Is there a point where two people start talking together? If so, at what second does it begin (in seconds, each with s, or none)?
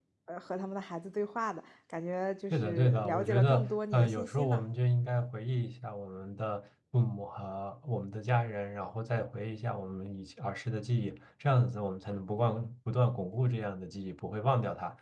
2.5 s